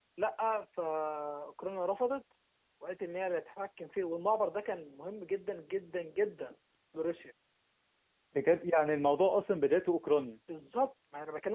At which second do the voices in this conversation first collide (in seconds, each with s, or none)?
none